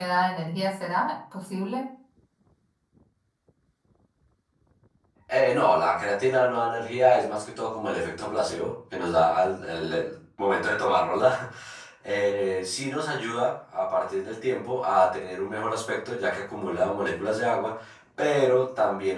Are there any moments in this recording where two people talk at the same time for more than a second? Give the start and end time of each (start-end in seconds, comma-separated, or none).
none